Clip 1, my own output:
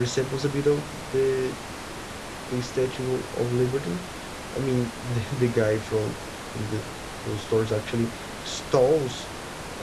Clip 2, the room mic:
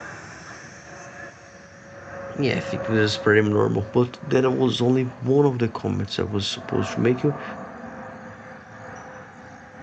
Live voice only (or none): Yeah, I think this is pretty normal. But that was only one of the comments I was supposed to make you,